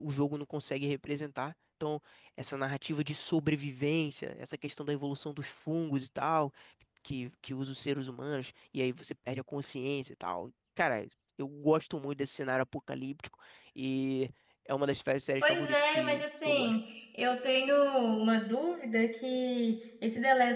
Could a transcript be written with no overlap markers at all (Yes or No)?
No